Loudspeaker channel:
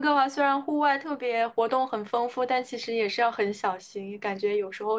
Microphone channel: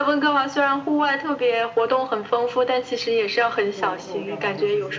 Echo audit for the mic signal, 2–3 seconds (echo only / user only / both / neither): echo only